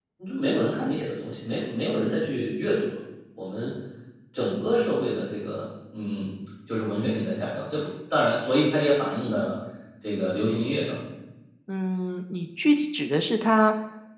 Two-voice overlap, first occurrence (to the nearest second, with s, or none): none